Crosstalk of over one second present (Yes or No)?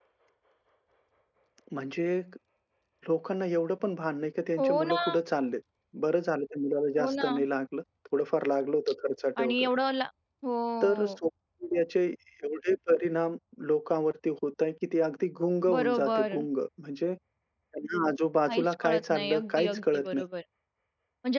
Yes